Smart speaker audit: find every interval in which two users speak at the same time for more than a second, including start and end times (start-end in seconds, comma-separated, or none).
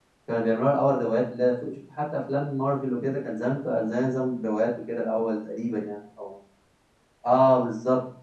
none